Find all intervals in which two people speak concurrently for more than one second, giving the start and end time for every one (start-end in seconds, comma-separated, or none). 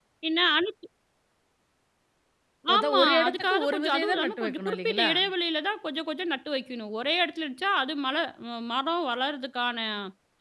2.7-5.1